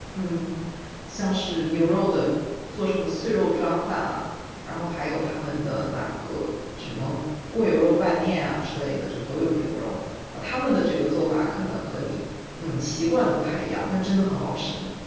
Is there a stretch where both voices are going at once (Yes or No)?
No